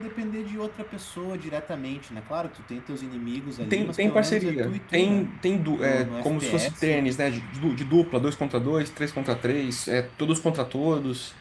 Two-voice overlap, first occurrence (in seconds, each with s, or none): 3.7 s